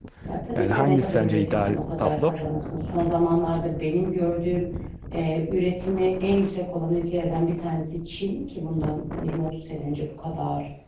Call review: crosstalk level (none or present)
present